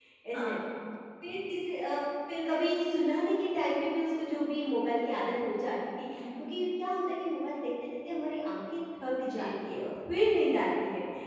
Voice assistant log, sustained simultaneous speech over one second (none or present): none